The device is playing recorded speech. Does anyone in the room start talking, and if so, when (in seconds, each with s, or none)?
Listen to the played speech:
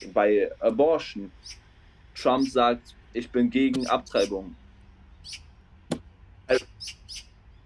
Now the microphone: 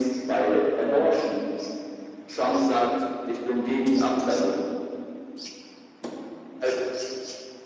none